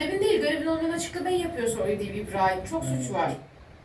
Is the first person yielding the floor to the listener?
Yes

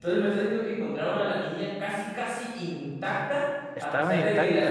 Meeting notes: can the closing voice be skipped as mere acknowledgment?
Yes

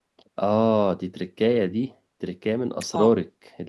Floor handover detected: No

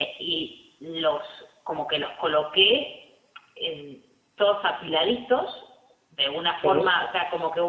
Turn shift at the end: No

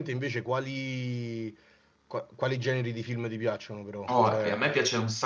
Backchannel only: No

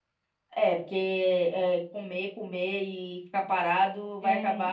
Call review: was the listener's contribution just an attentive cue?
No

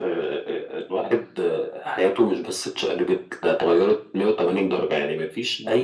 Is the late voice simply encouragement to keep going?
Yes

